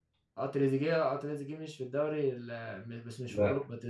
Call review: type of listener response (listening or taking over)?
listening